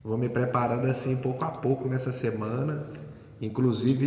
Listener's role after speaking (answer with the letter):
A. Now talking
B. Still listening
B